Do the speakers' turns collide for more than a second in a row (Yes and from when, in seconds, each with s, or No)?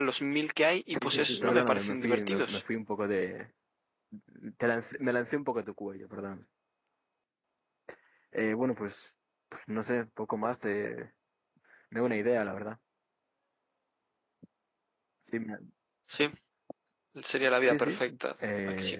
Yes, from 1.0 s